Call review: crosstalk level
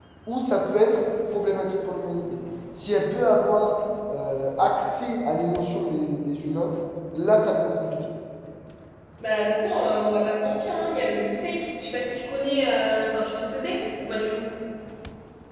none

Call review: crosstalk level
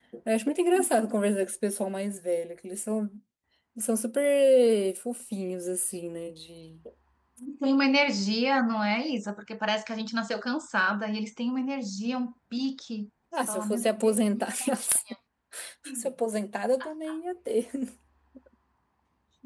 present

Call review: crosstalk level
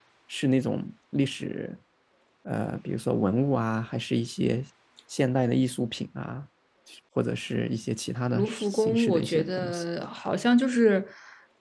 present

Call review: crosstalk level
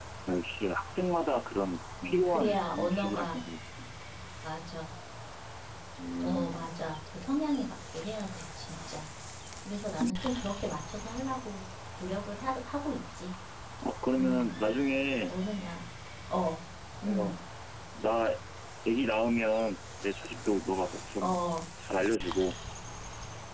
present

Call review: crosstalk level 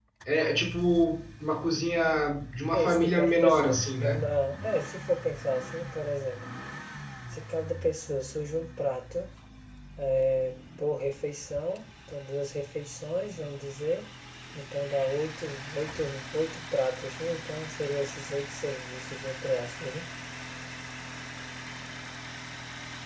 present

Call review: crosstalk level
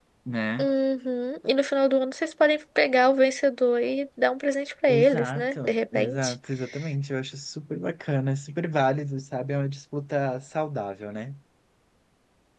present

